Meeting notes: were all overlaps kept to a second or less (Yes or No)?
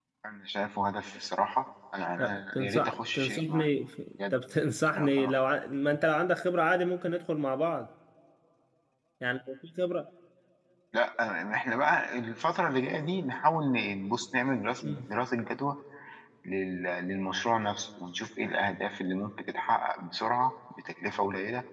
No